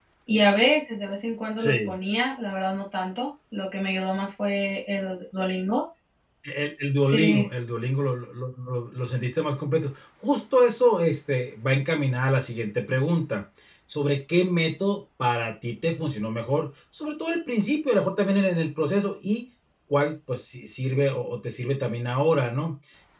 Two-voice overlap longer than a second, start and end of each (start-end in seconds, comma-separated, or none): none